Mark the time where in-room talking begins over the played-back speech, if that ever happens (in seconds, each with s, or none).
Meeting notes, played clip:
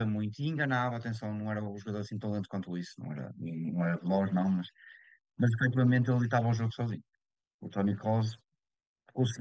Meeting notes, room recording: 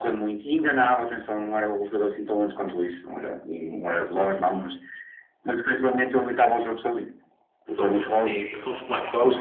7.7 s